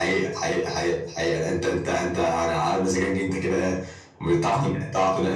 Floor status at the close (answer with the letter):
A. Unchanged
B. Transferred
A